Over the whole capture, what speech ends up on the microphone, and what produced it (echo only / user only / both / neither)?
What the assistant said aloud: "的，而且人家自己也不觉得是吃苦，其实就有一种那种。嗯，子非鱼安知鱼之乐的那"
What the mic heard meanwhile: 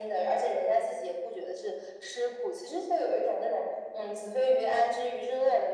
echo only